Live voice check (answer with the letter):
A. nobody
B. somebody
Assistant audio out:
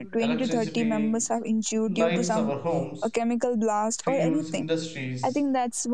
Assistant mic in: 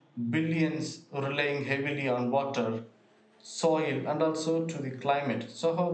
B